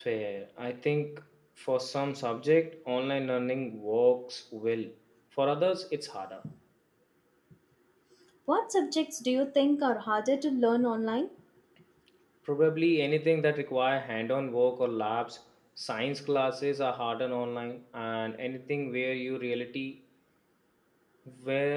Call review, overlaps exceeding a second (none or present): none